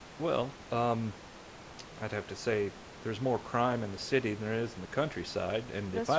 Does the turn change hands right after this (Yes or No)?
No